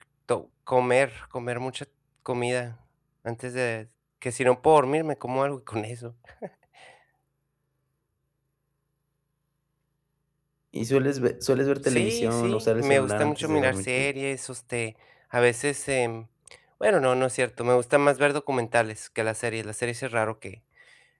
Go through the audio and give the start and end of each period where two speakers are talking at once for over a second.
11.8-14.1

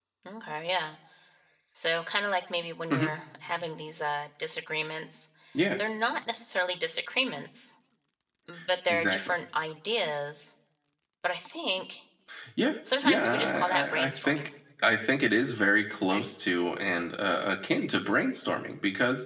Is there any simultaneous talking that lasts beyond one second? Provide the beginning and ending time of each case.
13.0-14.4

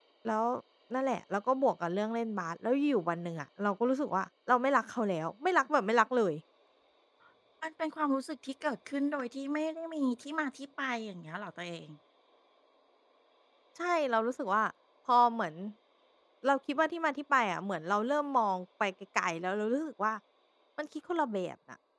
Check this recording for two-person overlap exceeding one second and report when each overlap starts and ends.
none

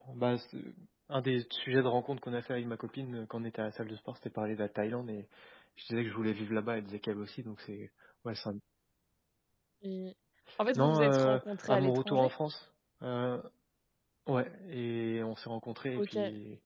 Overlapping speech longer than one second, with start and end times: 10.8-12.3

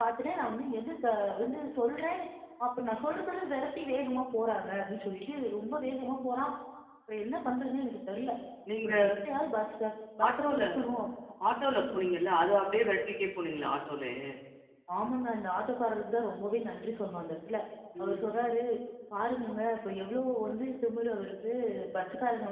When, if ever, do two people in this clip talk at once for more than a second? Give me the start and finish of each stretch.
none

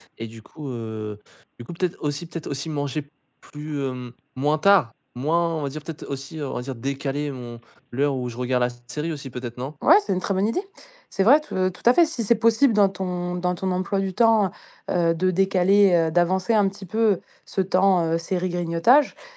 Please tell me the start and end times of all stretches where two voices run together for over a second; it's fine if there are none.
none

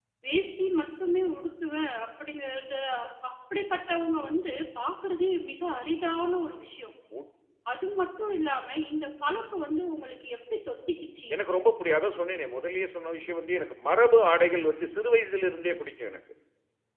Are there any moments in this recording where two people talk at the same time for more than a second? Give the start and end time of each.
none

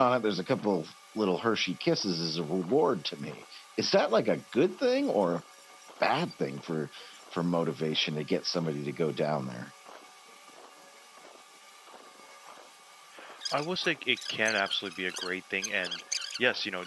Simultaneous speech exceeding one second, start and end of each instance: none

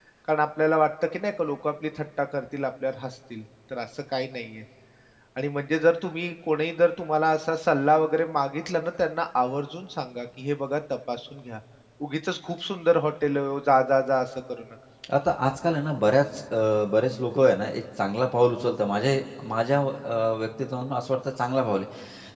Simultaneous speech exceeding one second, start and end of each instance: none

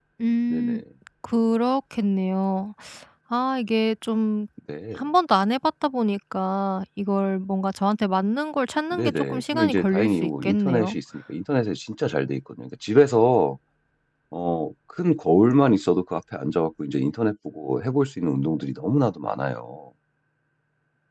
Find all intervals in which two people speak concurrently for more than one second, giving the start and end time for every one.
8.9-11.0

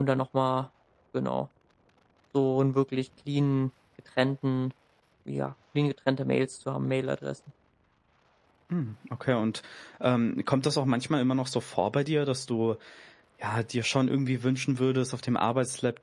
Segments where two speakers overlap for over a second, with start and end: none

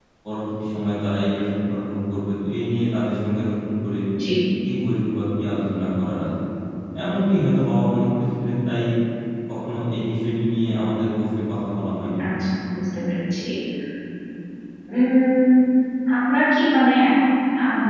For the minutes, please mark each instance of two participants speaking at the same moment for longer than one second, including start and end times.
none

